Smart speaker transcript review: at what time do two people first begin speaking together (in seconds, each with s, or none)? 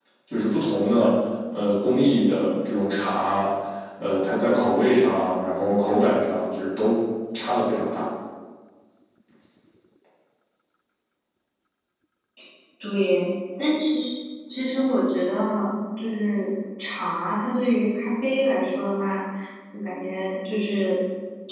none